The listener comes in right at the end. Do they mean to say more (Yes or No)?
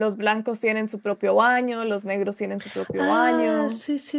Yes